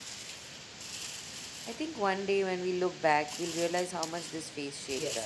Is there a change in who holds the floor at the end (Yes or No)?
Yes